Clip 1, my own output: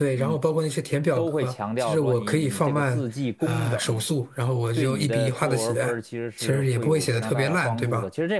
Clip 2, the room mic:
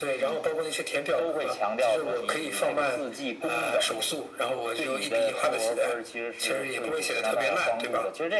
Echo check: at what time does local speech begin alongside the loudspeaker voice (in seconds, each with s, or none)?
none